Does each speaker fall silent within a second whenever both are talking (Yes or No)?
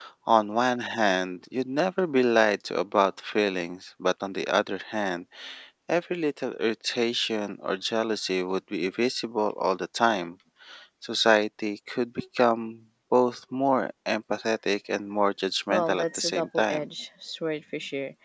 No